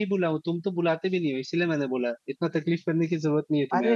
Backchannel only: No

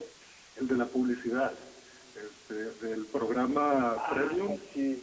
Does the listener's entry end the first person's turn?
Yes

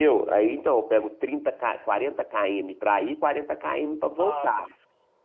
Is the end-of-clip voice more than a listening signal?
Yes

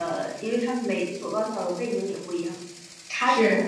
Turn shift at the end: No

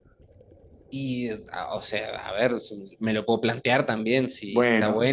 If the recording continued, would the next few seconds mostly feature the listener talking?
No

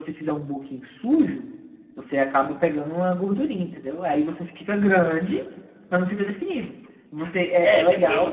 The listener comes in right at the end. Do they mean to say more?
Yes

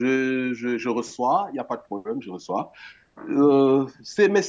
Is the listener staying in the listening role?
Yes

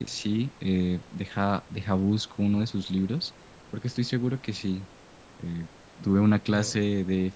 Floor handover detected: No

